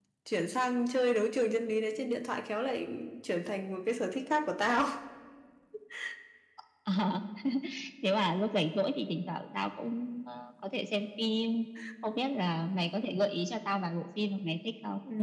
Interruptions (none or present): none